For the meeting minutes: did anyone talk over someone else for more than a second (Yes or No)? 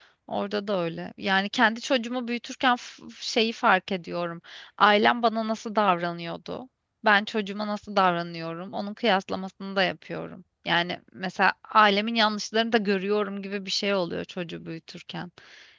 No